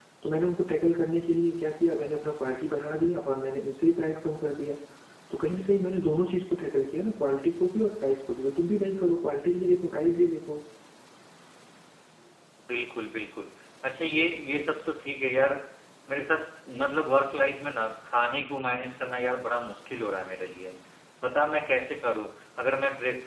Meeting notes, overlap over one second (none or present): none